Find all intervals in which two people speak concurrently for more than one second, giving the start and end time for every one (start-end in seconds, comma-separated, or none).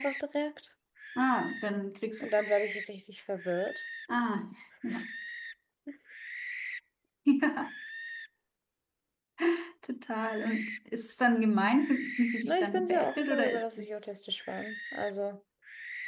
12.5-13.9